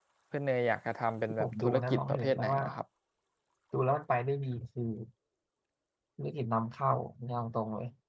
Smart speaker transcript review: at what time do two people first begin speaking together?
1.3 s

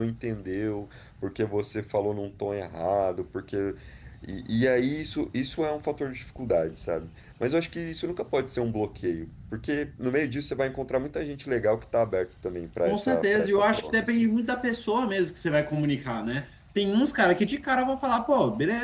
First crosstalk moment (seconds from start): 12.8 s

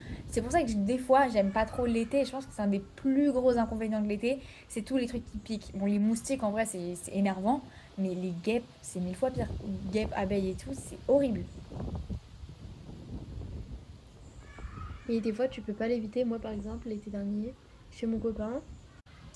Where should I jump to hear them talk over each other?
none

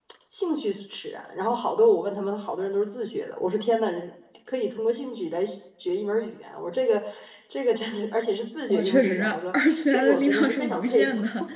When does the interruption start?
8.7 s

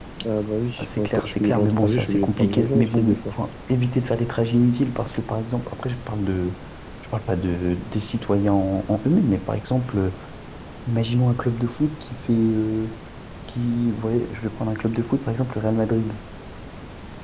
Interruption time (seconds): 0.8 s

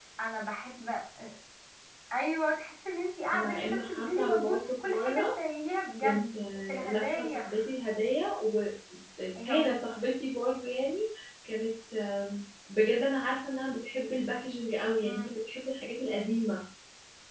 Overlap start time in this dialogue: 3.3 s

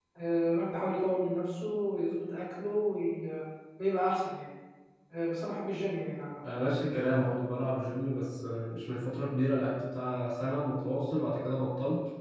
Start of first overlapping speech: none

